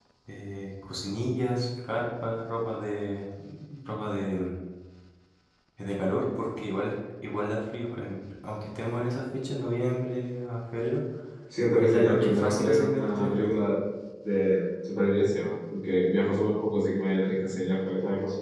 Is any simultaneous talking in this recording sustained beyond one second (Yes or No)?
Yes